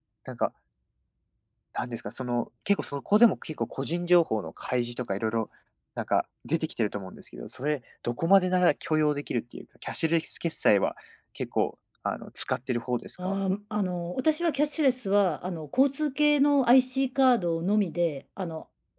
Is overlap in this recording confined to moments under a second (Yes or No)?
Yes